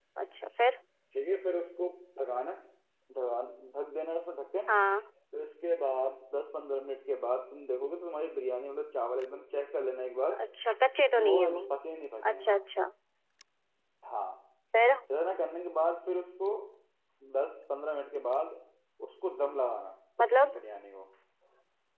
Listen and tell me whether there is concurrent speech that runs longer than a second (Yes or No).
No